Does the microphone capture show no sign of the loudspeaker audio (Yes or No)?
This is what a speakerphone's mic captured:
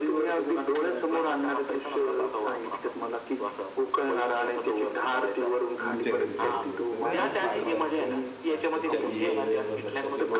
No